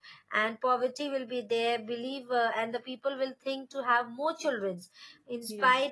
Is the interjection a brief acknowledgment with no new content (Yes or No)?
Yes